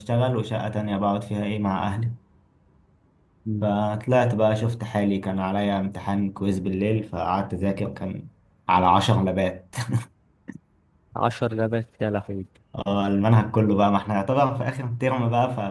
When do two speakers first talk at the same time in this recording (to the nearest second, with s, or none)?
none